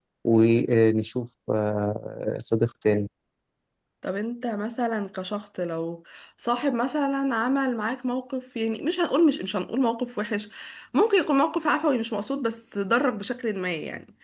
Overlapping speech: No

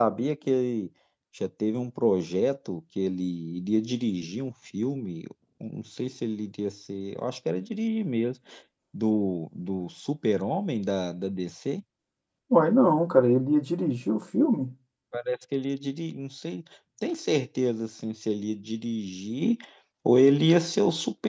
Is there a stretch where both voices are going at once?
No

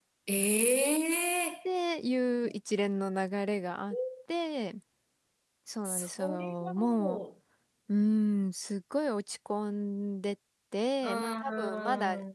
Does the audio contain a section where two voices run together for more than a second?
Yes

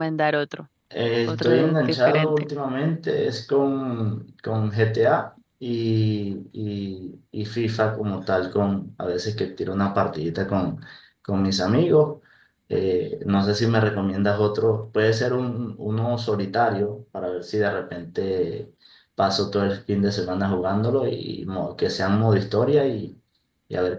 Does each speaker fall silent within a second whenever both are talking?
No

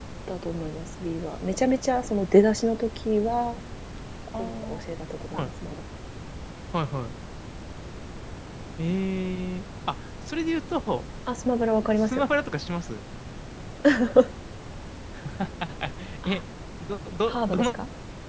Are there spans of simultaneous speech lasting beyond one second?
No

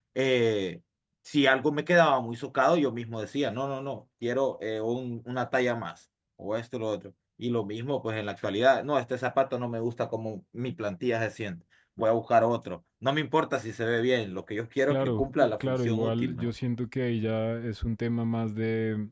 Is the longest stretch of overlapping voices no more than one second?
No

